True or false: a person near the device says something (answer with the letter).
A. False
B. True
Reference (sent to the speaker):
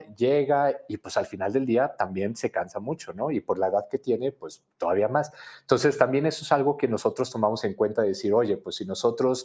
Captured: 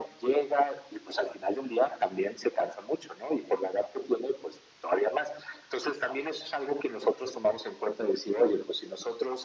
A